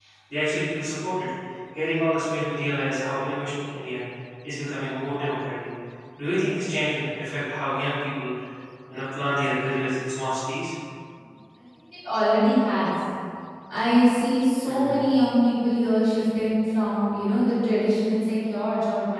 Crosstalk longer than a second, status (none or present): none